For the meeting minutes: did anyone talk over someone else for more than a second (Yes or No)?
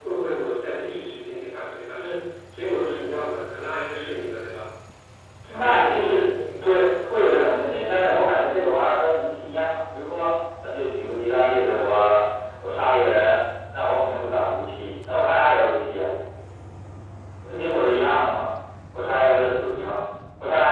Yes